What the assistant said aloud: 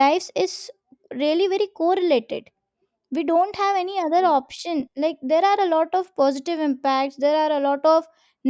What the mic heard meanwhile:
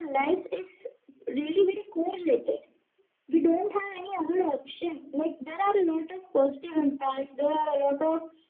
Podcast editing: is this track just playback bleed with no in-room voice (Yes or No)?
Yes